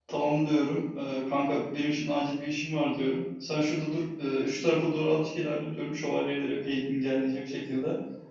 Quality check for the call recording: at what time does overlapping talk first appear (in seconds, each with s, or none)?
none